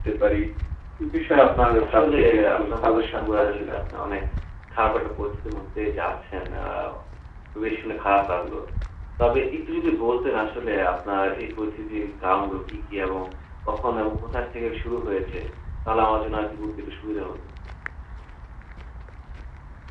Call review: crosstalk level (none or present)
present